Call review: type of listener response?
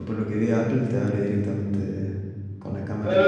taking over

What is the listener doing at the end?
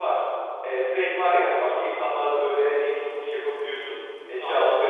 taking over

